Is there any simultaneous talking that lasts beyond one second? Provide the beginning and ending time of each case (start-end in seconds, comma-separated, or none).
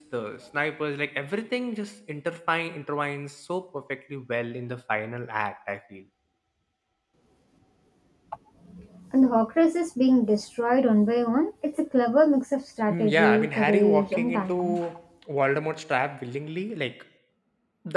12.9-14.8